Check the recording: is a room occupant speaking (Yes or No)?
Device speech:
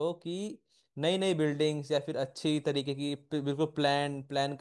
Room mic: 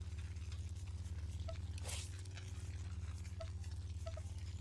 No